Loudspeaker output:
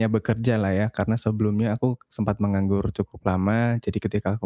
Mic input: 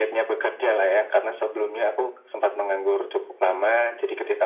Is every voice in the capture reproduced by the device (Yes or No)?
Yes